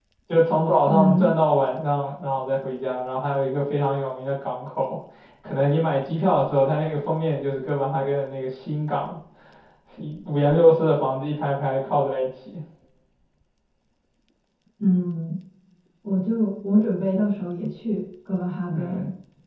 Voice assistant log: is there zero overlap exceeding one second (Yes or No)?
Yes